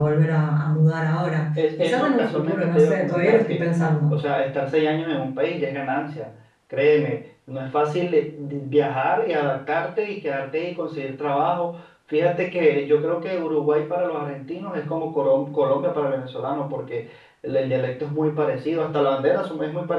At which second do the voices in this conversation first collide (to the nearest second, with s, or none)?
2 s